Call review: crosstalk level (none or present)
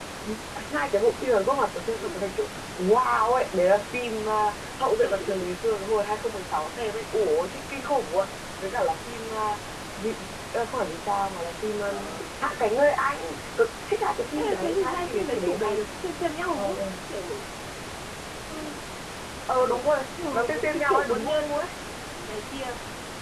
present